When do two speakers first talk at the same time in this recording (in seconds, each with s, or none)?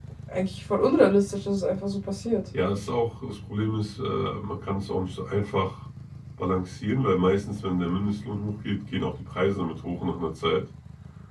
none